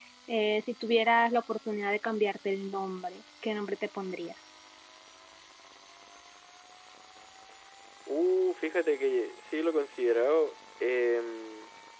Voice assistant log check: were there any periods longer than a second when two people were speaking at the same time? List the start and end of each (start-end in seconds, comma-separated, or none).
none